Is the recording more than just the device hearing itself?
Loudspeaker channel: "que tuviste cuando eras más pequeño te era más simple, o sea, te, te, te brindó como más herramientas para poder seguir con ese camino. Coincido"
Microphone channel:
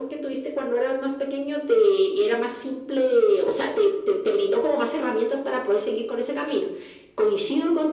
No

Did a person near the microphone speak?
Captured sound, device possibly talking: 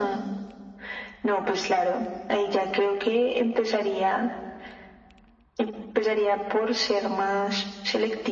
No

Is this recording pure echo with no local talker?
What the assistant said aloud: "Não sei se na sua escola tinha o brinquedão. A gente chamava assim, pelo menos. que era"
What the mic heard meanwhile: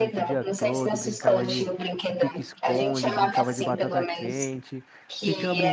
No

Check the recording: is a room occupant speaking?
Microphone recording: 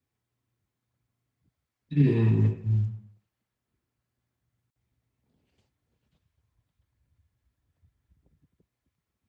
Yes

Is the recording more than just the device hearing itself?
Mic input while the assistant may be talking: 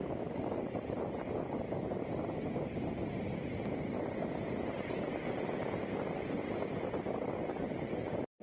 No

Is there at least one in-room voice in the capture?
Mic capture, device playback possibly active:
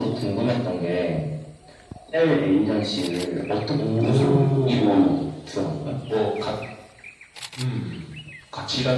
No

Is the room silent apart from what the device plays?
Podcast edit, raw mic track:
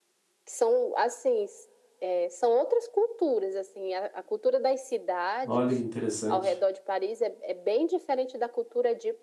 No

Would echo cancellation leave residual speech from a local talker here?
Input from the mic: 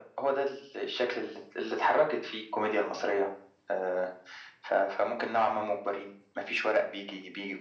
No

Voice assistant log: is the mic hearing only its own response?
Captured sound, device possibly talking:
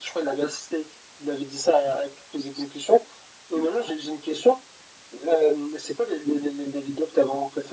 Yes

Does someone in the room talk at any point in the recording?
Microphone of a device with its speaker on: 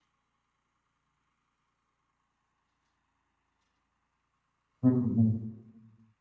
Yes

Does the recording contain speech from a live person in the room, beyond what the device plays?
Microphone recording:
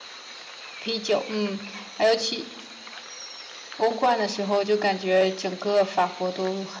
No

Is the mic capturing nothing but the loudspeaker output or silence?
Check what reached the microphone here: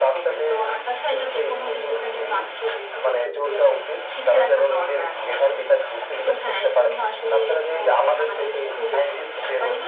Yes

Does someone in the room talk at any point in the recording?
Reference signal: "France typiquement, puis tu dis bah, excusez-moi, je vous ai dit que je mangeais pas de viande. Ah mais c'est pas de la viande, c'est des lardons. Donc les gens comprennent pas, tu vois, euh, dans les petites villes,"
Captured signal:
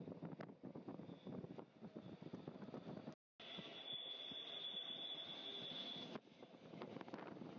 No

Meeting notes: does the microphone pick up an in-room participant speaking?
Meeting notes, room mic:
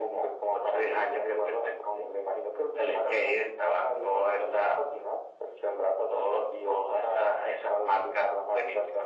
No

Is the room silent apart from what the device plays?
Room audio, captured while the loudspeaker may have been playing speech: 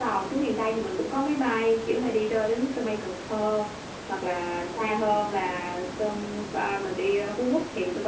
Yes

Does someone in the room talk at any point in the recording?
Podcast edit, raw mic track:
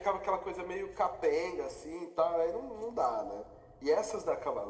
No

